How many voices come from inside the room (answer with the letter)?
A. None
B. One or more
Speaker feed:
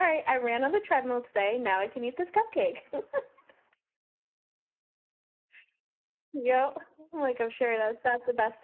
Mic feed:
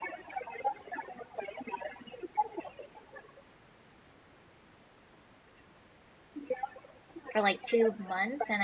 B